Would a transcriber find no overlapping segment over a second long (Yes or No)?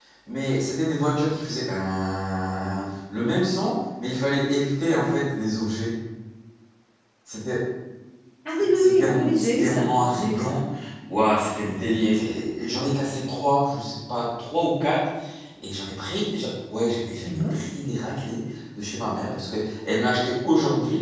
No